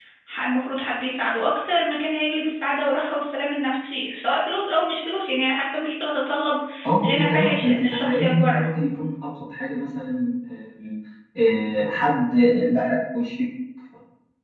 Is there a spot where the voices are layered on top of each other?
Yes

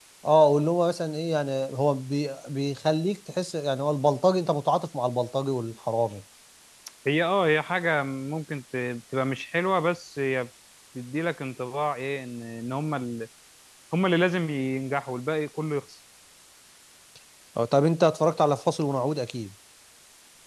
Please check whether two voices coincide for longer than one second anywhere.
No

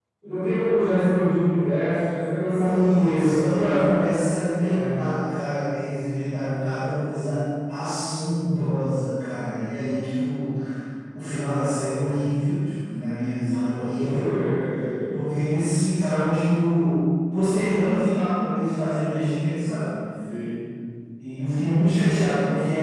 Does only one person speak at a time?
No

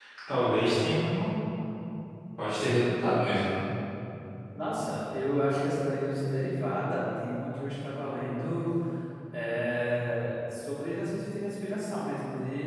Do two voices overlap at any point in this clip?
No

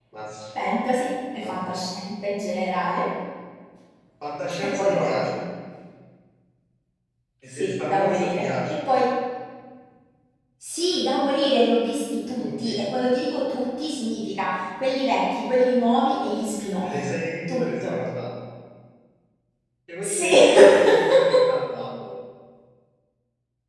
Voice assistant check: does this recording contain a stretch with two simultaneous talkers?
Yes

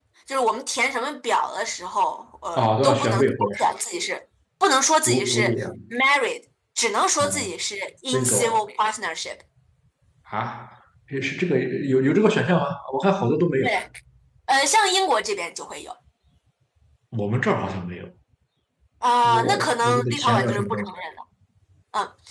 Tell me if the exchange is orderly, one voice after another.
No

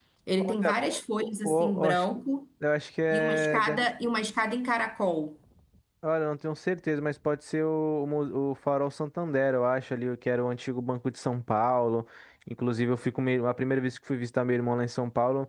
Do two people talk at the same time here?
Yes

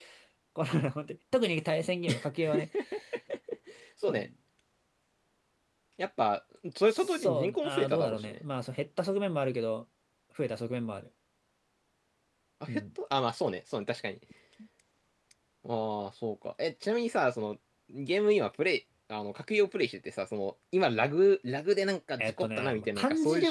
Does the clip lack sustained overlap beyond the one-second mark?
No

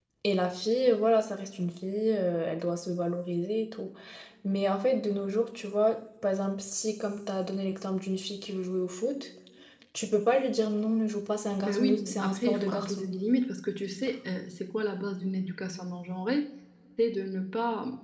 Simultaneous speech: Yes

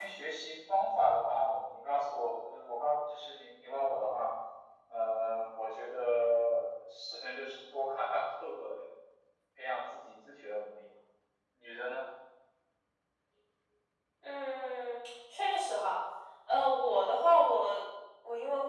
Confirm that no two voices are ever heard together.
Yes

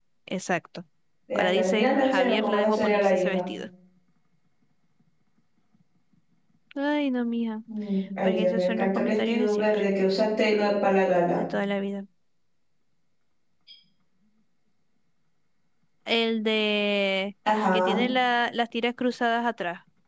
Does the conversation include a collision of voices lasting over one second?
Yes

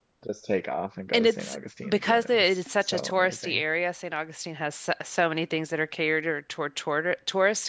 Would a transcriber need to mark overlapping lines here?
Yes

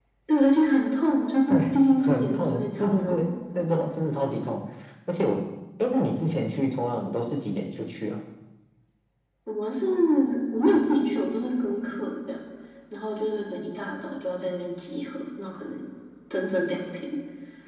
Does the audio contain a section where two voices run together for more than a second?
Yes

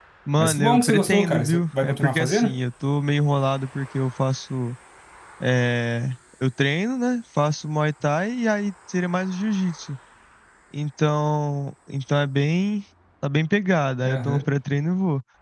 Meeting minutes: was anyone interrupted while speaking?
Yes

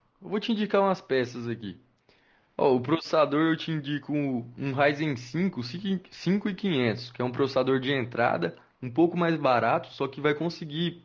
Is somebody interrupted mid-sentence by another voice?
No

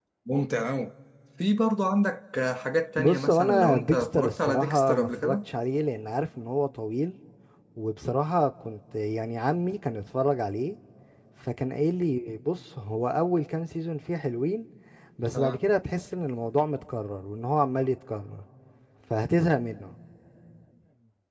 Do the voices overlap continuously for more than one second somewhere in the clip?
Yes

